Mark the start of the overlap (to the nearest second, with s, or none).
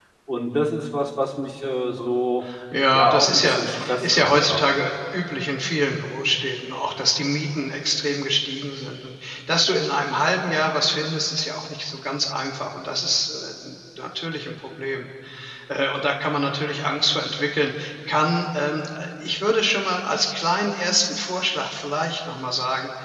3 s